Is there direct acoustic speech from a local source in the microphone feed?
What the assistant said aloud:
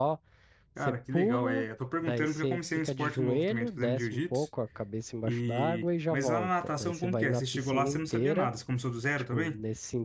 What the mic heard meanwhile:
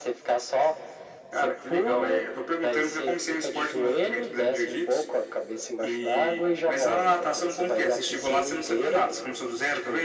No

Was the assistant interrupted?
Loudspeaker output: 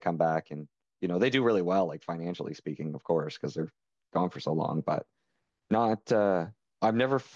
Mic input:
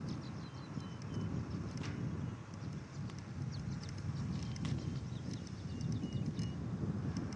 No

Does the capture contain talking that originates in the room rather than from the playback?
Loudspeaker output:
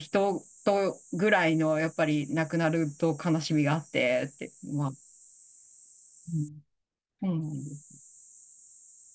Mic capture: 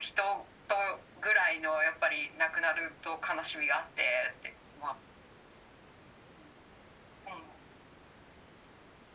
No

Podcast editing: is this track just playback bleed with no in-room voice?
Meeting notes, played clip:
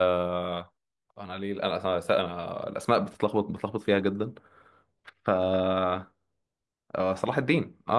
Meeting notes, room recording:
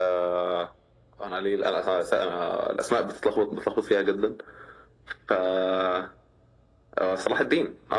Yes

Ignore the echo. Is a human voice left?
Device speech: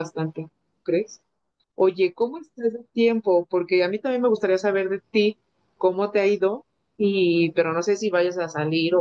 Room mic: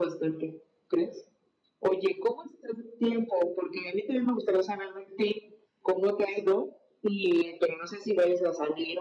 No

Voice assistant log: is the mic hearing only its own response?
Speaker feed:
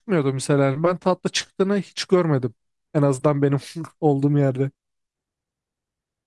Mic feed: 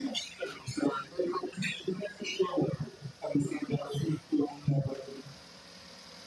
Yes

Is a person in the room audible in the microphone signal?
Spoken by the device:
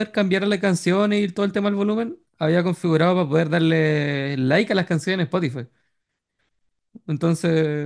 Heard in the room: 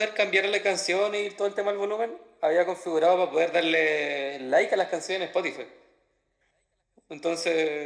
No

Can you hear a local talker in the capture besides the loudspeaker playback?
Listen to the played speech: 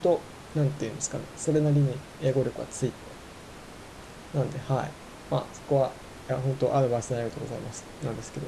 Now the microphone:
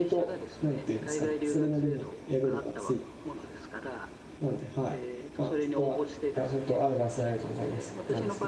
Yes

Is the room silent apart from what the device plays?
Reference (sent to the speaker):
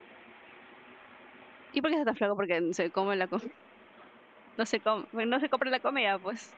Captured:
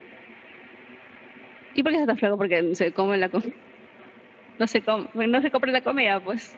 Yes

